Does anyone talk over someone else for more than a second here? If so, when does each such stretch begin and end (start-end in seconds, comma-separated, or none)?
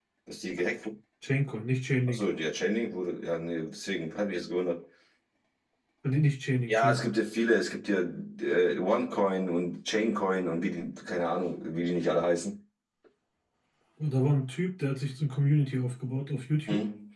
none